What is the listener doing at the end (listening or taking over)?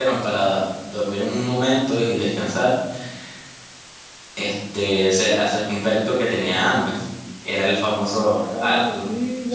taking over